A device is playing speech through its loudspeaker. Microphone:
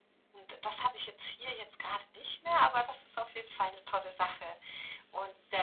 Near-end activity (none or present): none